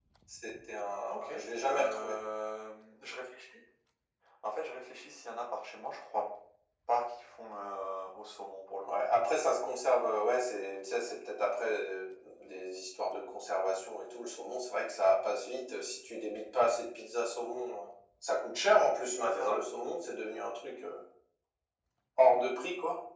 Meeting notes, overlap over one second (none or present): none